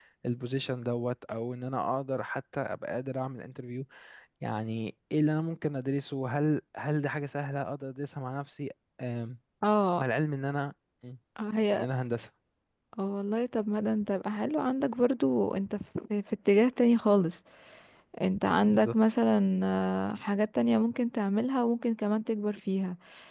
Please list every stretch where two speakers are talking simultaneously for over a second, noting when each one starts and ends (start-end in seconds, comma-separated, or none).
none